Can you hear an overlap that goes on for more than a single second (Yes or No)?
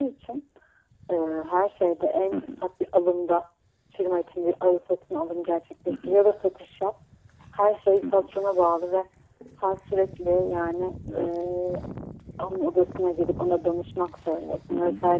No